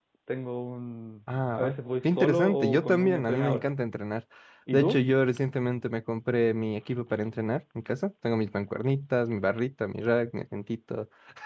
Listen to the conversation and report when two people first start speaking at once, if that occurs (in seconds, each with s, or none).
1.6 s